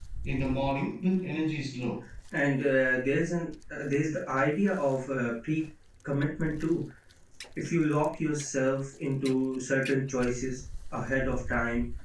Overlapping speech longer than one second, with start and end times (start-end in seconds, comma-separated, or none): none